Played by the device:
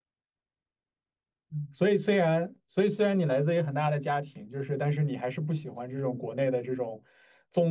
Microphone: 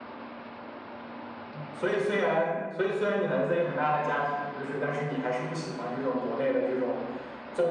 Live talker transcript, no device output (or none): none